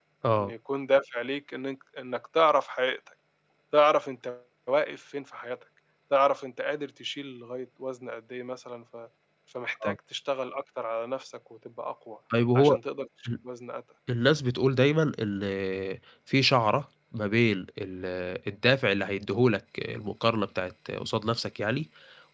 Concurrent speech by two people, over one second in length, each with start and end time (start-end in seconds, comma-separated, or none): none